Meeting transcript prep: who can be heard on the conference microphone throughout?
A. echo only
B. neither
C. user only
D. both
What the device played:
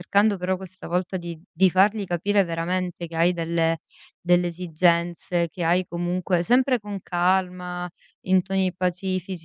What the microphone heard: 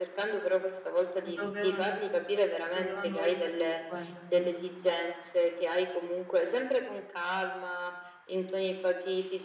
D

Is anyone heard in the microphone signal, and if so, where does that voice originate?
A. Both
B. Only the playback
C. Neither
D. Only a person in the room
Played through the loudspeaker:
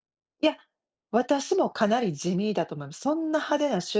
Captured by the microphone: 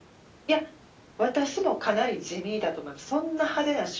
B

